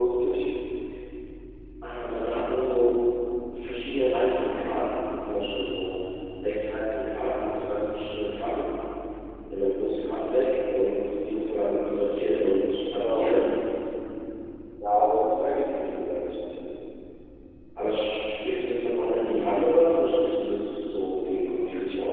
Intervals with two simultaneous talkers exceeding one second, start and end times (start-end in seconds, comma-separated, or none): none